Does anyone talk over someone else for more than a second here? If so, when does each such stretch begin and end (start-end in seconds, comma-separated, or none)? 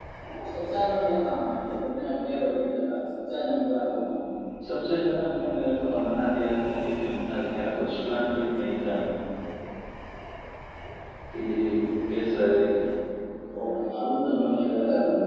none